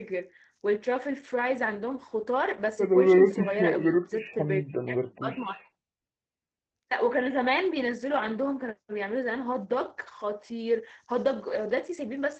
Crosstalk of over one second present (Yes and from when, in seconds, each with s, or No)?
Yes, from 2.8 s